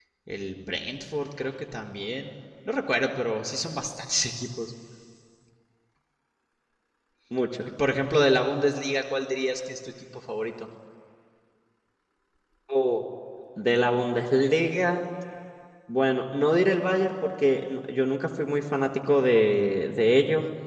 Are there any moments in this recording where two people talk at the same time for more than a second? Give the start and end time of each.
none

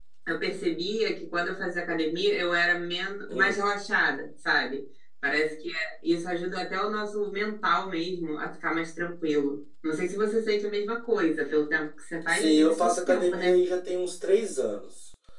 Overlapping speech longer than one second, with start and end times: 12.3-13.6

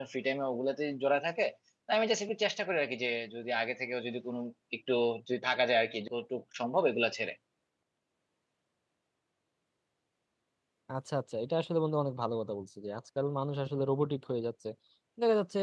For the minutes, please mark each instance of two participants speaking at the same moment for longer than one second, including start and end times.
none

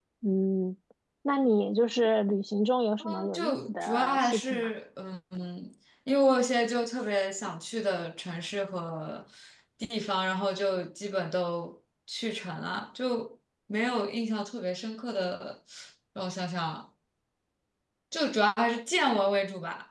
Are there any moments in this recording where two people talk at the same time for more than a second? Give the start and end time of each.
3.0-4.7

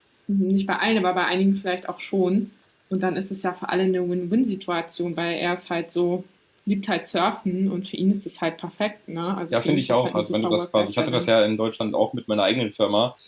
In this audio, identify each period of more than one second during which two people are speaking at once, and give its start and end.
9.5-11.4

